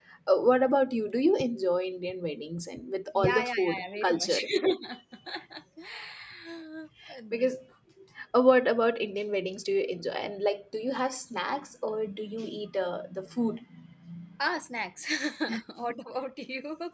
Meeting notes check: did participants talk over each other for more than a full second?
Yes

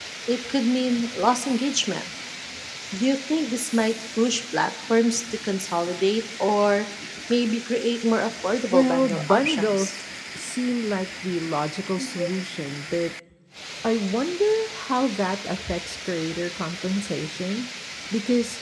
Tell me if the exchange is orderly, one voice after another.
No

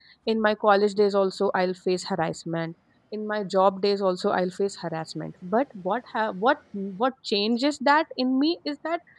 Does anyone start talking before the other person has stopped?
No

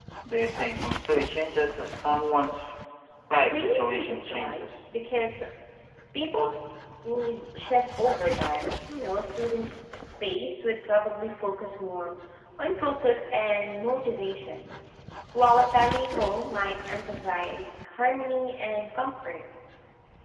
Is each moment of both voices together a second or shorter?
No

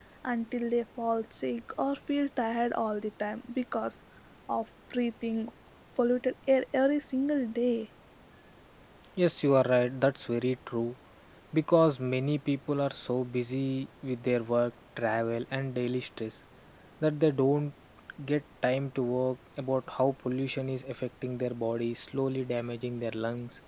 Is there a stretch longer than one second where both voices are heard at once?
No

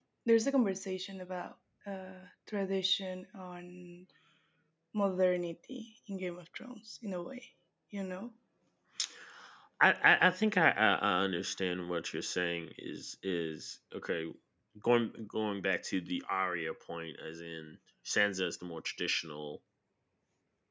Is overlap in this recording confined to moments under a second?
Yes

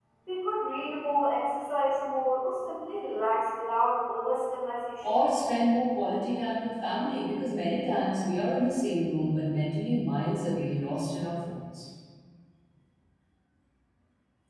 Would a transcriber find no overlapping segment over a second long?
Yes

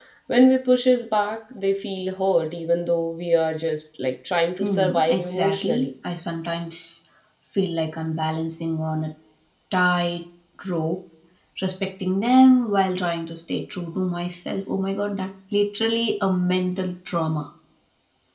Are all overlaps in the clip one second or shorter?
No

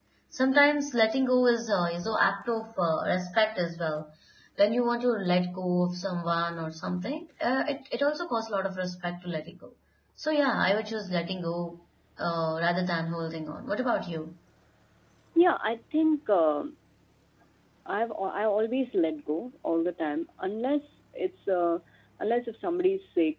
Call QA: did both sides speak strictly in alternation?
Yes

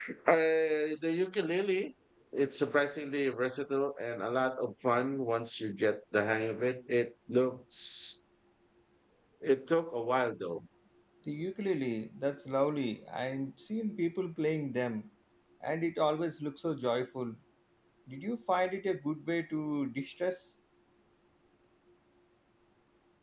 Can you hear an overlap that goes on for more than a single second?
No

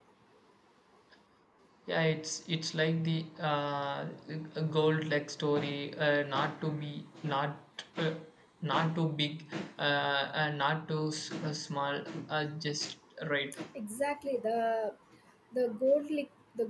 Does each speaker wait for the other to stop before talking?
Yes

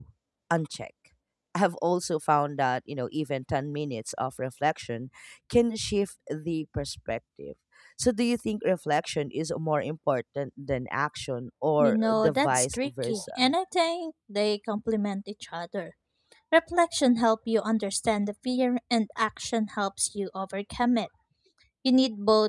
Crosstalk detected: Yes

